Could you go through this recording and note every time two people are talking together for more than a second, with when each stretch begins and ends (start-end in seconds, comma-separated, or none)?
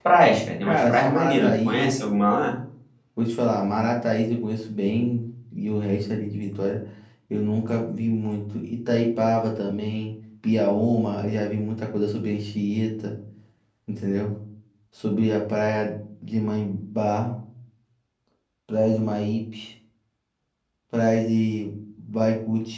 0.7-2.0